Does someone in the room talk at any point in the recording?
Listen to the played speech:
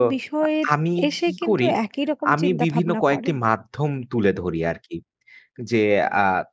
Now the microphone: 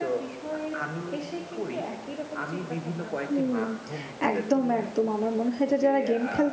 Yes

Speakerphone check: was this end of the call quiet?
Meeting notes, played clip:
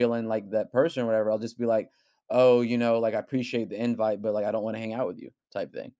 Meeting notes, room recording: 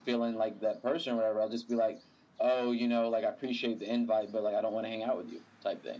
Yes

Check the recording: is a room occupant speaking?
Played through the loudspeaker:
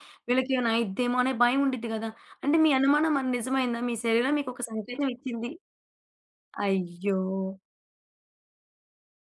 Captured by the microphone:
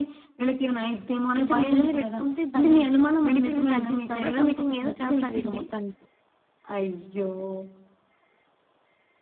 Yes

